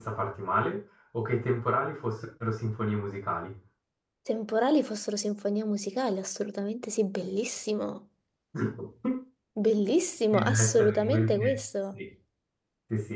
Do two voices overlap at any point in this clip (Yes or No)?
Yes